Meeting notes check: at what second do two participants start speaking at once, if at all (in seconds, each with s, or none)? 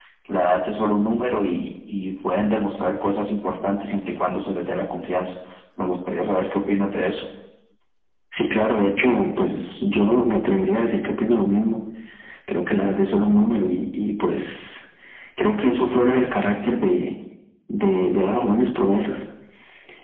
none